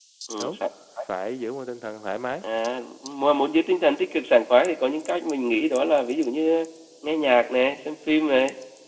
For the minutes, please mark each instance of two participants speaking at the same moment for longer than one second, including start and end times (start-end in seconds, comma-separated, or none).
none